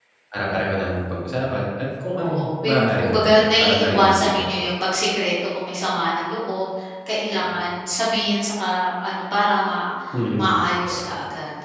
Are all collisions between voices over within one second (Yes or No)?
No